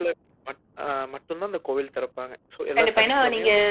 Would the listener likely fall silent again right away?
No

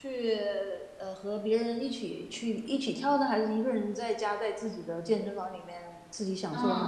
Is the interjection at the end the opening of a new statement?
Yes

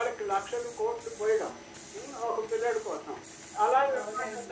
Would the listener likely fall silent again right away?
Yes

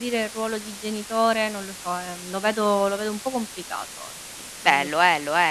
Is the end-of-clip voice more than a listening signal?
Yes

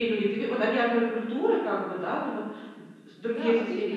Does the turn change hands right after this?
Yes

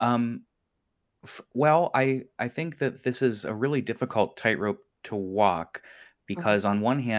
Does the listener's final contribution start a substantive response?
No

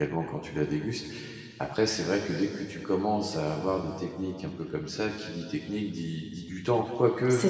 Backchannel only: Yes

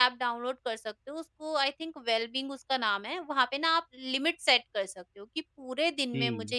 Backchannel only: Yes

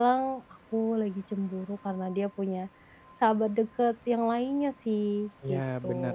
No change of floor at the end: No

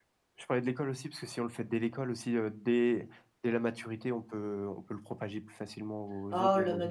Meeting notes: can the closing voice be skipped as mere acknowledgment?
No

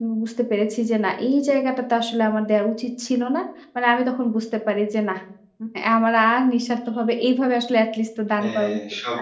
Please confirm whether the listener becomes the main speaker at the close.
Yes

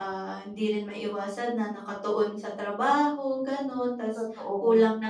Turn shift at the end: No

